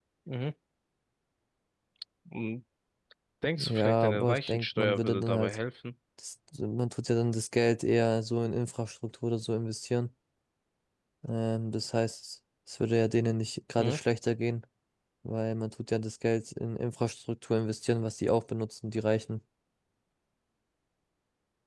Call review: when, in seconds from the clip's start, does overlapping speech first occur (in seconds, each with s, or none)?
3.6 s